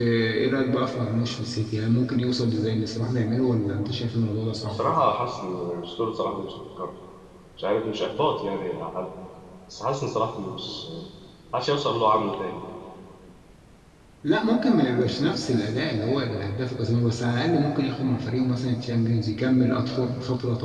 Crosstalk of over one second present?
No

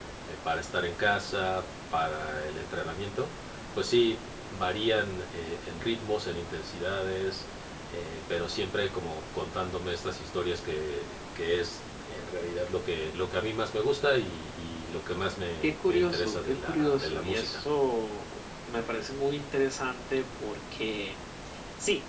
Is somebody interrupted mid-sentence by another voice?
Yes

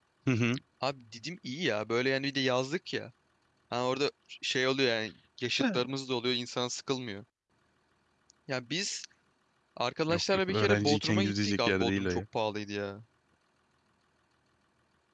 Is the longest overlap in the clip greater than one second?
Yes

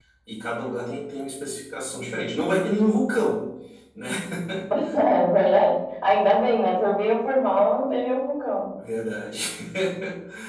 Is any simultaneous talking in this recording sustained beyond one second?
No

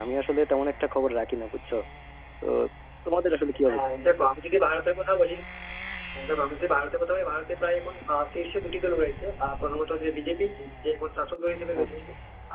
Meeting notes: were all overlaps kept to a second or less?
Yes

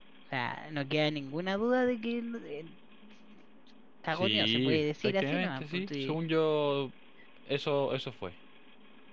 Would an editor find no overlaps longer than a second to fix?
No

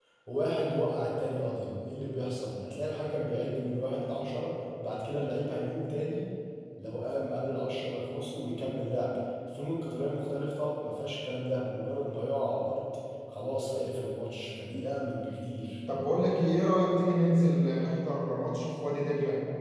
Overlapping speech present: No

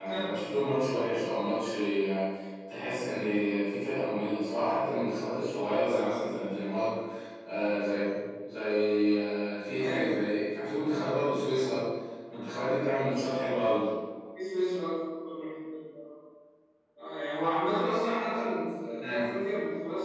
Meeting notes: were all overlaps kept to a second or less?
Yes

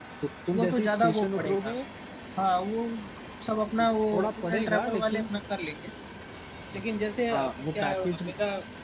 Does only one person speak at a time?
No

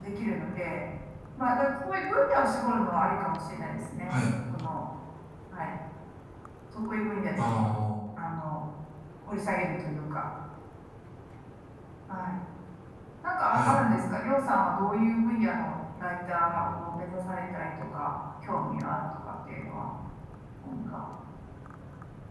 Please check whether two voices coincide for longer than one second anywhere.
No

